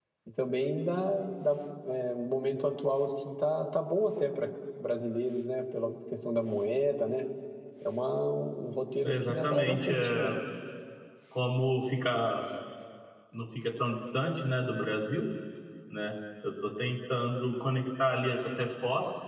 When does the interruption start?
9.0 s

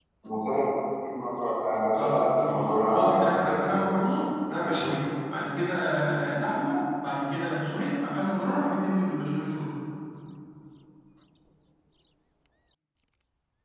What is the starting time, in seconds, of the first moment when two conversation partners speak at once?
1.9 s

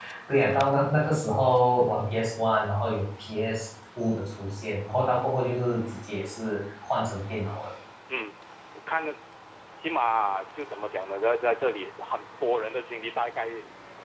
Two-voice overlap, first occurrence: none

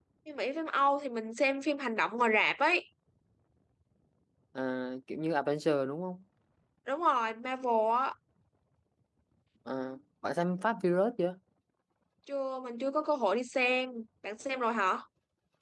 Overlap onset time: none

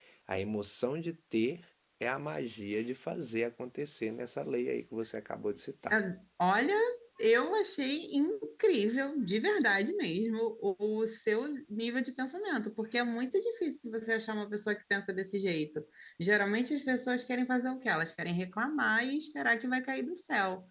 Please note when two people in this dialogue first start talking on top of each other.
none

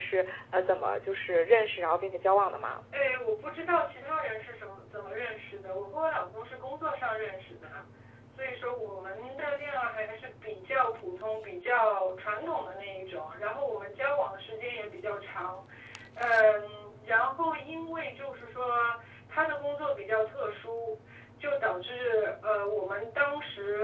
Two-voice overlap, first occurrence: none

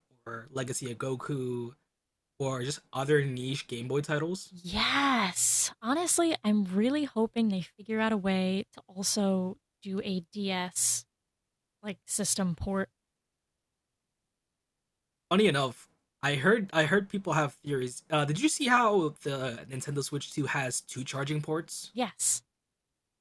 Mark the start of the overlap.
none

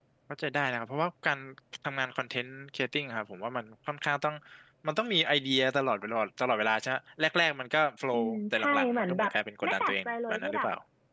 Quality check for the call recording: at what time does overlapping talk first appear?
8.1 s

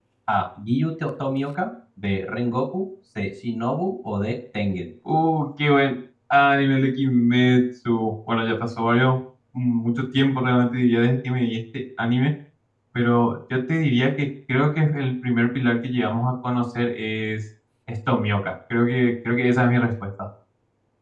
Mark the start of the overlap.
none

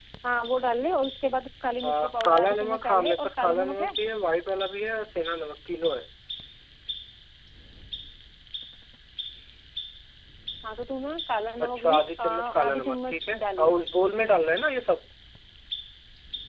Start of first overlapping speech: 1.8 s

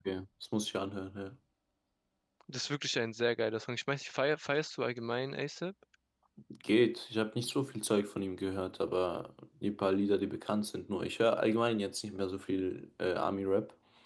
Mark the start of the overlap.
none

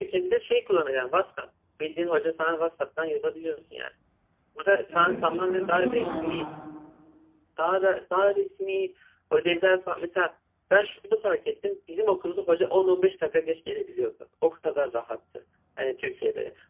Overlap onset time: 4.9 s

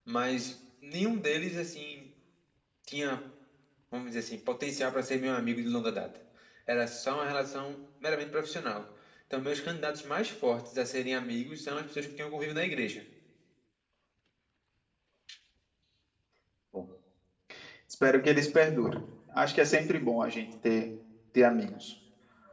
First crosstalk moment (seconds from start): none

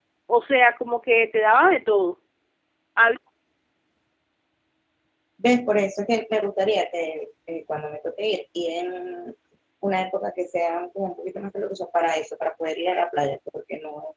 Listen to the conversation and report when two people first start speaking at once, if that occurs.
none

